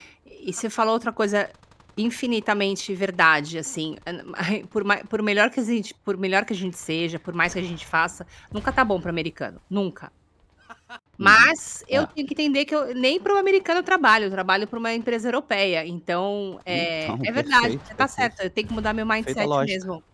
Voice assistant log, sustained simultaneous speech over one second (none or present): present